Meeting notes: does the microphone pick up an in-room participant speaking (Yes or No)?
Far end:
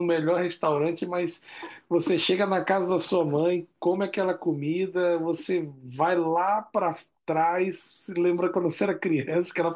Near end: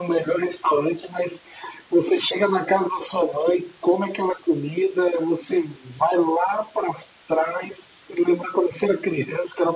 No